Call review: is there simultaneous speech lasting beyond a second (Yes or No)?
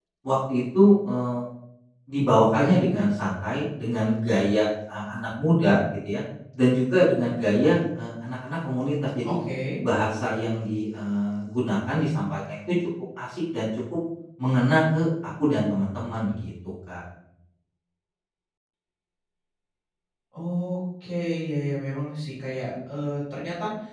No